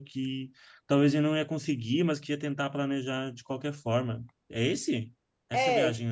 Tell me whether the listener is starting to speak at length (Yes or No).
Yes